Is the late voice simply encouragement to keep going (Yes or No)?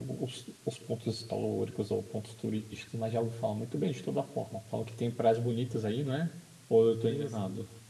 No